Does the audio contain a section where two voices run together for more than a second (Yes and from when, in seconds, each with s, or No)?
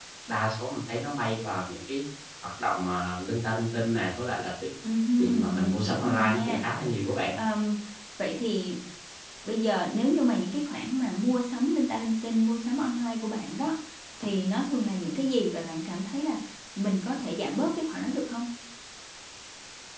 Yes, from 5.2 s